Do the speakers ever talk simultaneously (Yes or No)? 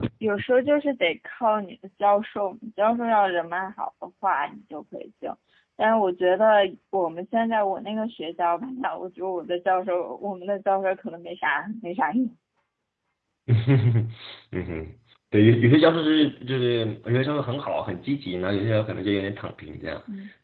No